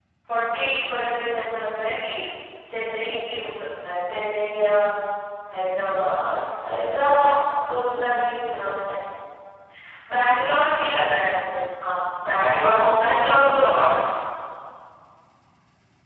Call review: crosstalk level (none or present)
present